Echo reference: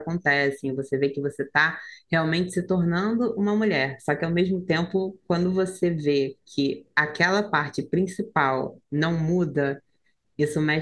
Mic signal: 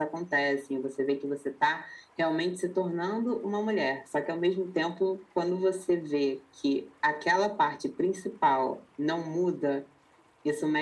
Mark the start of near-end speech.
none

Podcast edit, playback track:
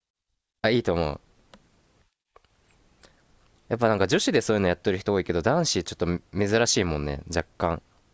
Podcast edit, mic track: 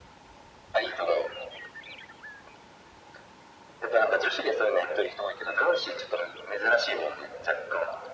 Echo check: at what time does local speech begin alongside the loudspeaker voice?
none

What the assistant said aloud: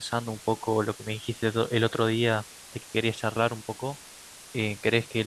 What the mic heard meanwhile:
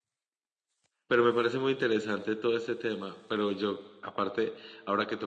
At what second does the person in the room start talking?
1.1 s

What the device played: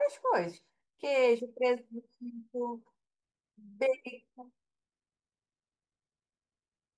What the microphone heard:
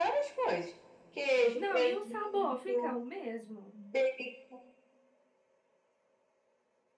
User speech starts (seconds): 1.5 s

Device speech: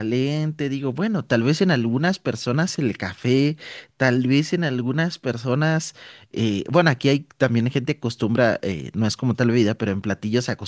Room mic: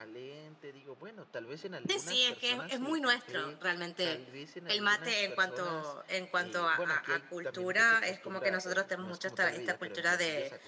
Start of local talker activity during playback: 1.9 s

